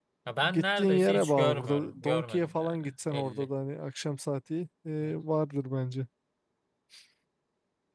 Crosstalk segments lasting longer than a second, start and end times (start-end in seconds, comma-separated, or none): 0.5-3.5